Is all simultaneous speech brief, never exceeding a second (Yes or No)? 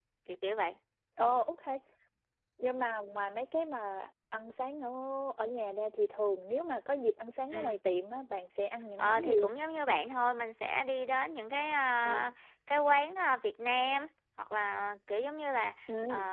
Yes